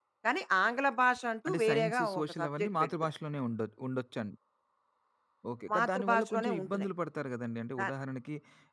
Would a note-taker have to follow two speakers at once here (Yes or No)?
Yes